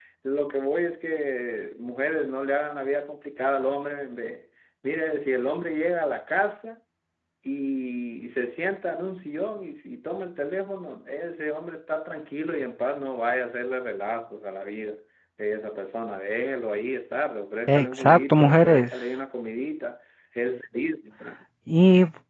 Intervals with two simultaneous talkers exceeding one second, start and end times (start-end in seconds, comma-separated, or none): 17.7-18.9